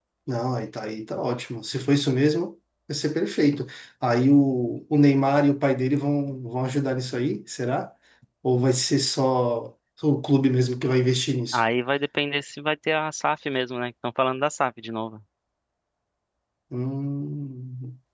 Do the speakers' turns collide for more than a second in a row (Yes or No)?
No